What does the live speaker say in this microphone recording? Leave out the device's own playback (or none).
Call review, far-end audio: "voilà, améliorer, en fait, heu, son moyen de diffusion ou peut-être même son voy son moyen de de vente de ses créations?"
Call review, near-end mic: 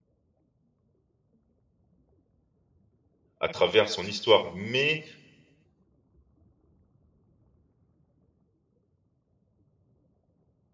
à travers son histoire, mais